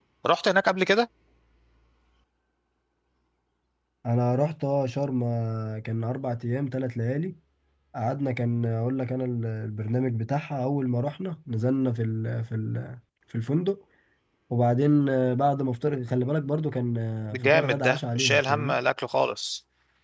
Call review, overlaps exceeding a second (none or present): present